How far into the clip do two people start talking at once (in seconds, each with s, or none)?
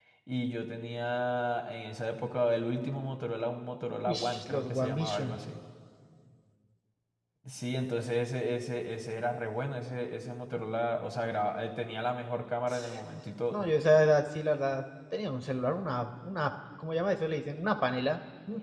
4.1 s